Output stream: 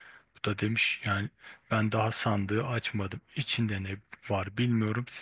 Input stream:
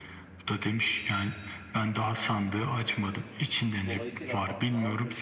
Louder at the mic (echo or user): echo